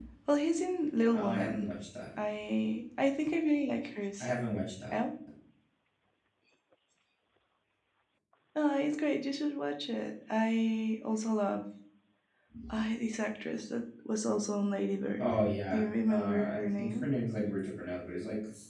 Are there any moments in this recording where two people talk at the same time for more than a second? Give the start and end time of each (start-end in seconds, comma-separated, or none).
15.7-17.0